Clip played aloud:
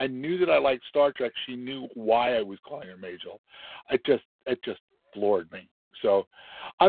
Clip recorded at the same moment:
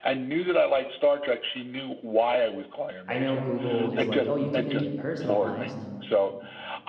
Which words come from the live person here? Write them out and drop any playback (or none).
I know Google is like, "Oh, you can make it personalized.